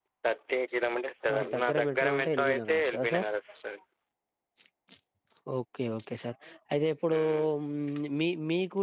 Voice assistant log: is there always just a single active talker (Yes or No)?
No